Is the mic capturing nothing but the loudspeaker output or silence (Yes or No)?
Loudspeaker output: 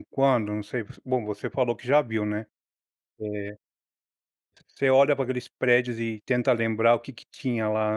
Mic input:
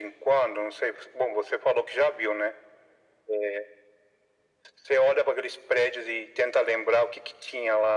Yes